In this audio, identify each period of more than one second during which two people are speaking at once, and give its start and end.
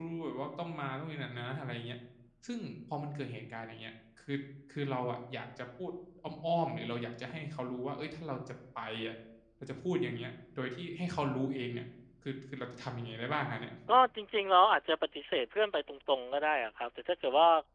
none

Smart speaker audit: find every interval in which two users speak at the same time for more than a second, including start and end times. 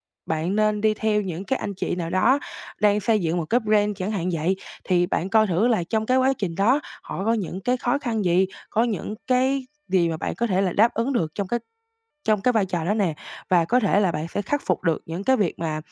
none

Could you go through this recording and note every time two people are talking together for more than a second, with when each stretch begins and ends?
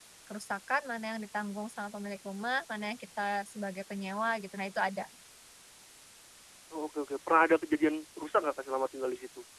none

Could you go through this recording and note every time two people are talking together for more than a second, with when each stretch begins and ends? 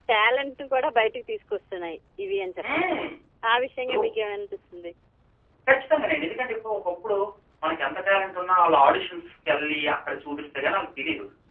none

